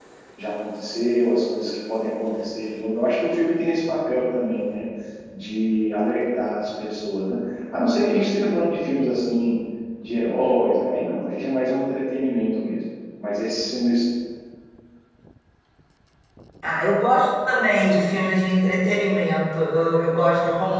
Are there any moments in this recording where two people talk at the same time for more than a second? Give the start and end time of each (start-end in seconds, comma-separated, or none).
none